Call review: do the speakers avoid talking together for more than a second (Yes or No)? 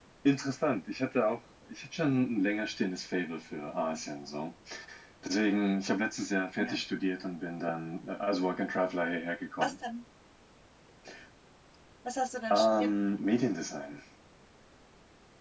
Yes